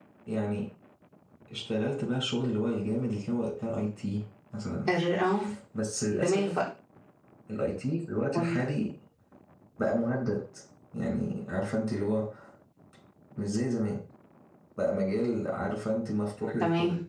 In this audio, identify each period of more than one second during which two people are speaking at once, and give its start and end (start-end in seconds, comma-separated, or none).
none